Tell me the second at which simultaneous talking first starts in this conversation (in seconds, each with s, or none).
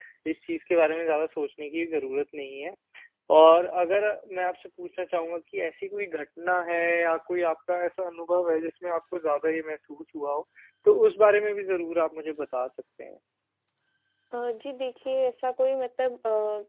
none